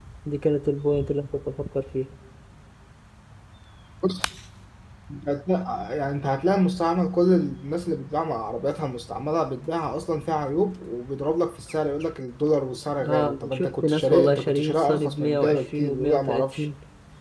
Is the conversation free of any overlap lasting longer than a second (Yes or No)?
No